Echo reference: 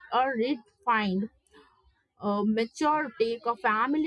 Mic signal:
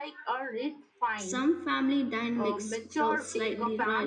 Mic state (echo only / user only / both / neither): both